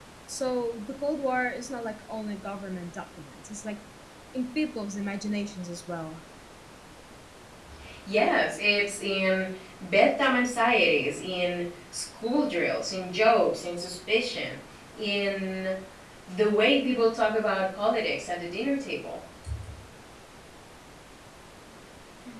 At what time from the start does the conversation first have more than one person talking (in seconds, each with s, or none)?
none